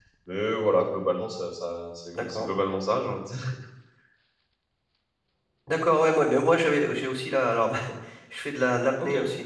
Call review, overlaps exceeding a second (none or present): none